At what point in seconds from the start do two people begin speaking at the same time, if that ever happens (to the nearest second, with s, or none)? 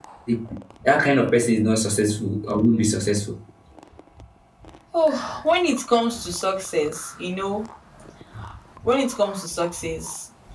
none